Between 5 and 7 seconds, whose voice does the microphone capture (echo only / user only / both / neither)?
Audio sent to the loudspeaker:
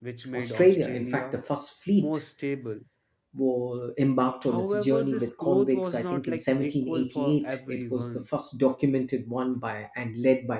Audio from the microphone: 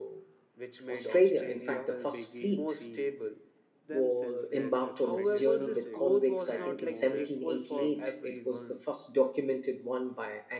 both